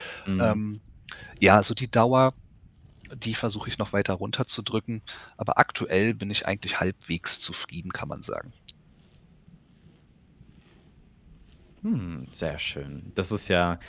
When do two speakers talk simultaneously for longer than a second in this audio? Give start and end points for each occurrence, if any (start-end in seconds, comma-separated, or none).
none